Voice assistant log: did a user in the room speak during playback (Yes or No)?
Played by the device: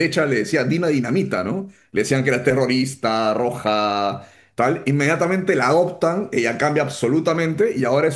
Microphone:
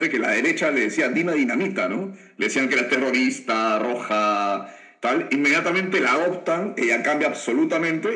No